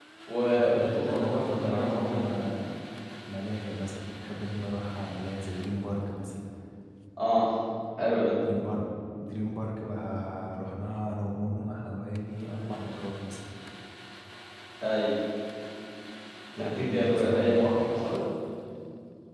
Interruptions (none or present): present